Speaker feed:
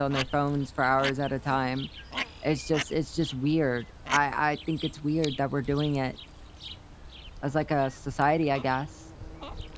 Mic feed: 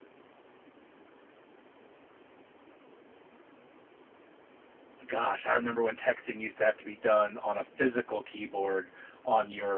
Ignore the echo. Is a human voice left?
Yes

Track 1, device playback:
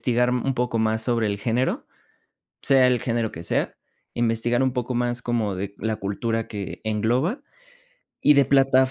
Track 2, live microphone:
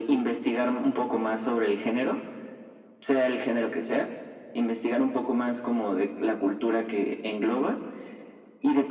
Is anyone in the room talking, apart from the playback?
No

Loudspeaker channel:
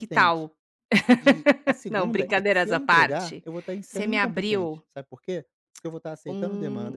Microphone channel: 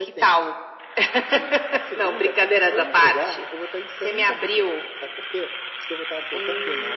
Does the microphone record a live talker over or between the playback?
No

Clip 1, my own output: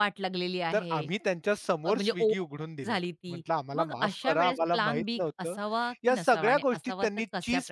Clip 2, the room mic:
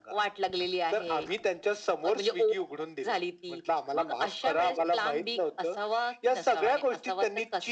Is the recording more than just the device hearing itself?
No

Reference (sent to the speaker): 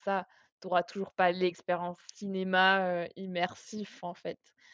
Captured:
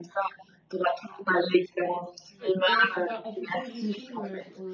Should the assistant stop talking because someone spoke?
Yes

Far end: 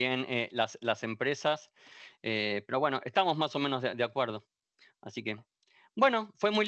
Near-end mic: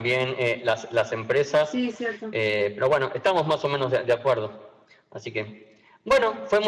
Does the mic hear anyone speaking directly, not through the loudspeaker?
Yes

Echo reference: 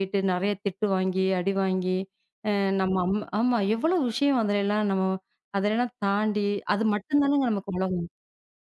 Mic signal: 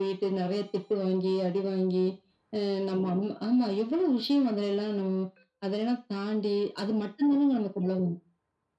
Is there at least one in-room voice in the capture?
No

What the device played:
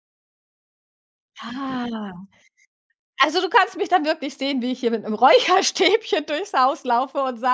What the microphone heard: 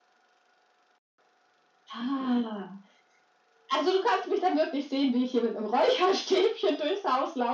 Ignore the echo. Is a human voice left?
No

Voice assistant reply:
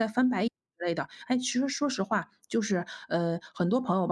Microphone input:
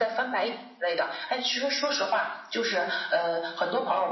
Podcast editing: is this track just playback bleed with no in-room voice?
Yes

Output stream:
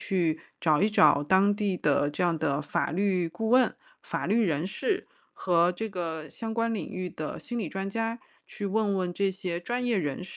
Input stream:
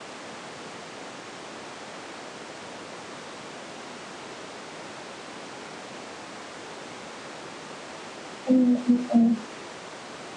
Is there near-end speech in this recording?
Yes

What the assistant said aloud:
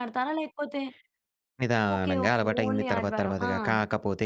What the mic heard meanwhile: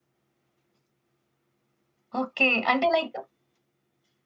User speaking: Yes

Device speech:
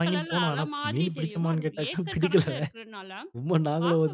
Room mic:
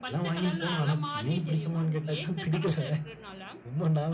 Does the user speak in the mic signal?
No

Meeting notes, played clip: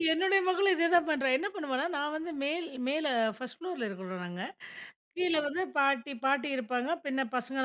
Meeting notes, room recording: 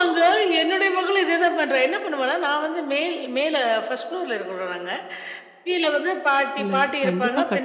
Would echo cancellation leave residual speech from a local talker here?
Yes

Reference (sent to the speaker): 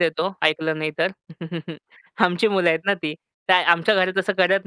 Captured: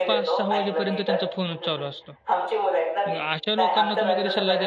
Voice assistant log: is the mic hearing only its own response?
No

